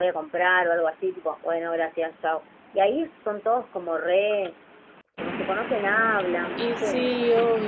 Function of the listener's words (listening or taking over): taking over